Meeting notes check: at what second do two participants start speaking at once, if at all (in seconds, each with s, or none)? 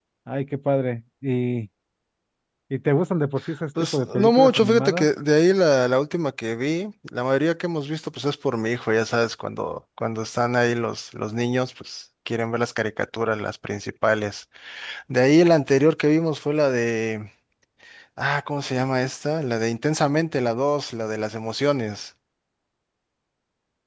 3.8 s